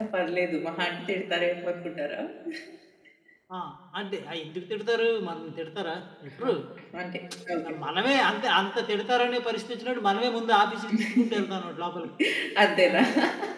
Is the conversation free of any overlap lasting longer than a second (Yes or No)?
Yes